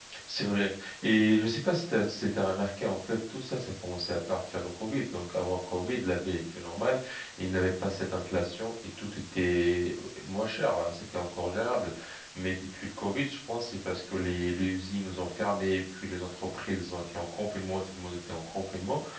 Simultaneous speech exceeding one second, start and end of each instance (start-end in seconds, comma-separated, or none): none